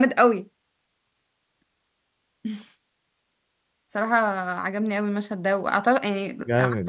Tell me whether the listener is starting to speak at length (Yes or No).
Yes